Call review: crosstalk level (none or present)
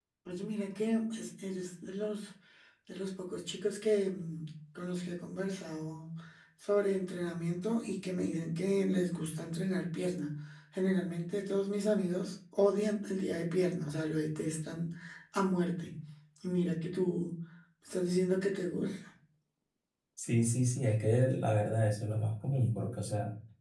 none